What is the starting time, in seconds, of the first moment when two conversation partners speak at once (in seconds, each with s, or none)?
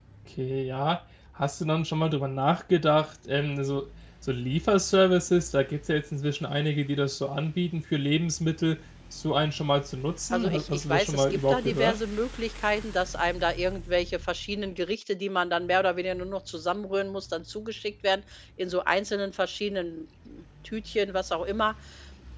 10.3 s